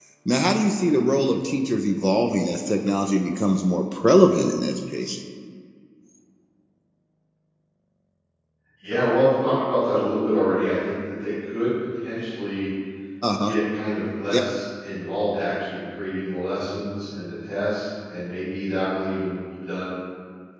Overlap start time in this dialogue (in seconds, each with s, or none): none